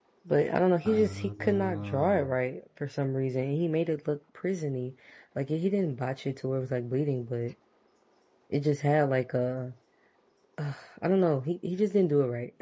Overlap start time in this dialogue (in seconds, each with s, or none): 0.8 s